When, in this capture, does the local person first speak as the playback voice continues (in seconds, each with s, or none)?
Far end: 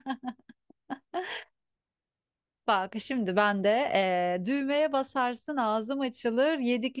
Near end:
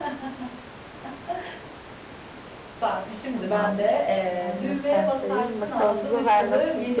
3.3 s